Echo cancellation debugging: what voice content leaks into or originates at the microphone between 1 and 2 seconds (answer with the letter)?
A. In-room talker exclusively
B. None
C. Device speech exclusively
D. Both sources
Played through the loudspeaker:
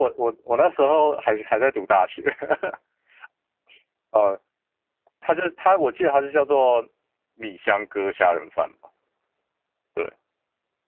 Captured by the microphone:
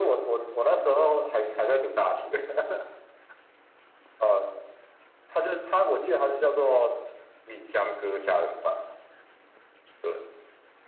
C